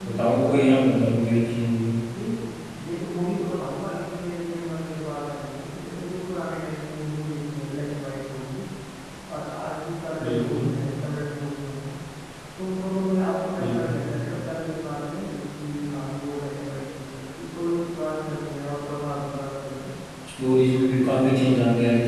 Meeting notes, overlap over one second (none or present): none